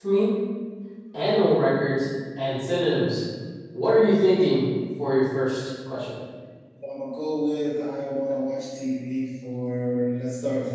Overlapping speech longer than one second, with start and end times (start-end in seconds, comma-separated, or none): none